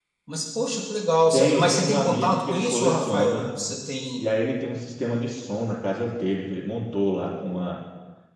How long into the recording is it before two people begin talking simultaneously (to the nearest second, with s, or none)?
1 s